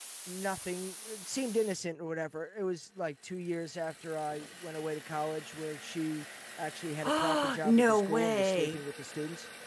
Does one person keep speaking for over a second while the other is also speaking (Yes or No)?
Yes